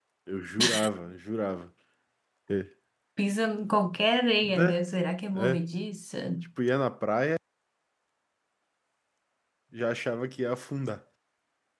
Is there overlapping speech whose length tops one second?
No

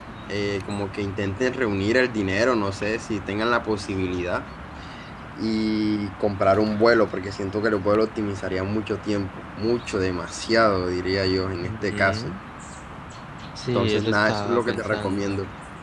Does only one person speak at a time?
No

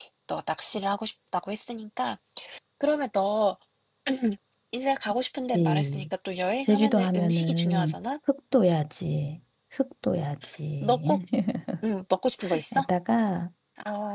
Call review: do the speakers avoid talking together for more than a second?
No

